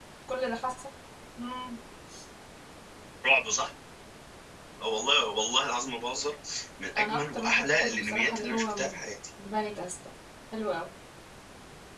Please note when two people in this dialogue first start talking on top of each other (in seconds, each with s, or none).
7.0 s